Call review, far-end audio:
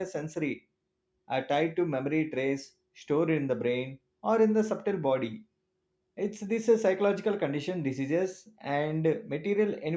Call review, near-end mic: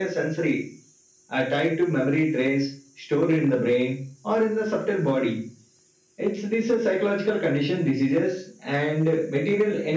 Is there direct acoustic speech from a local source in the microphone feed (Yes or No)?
No